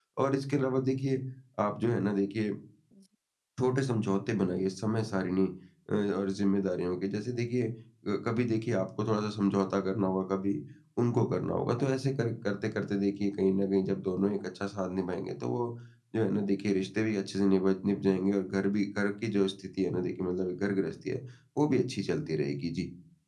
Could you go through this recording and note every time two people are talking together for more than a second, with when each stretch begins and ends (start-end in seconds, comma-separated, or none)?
none